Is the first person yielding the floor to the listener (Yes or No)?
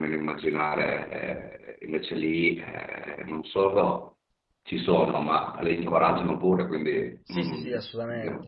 Yes